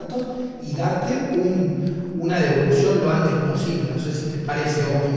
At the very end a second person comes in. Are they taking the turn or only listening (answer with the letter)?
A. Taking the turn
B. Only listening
A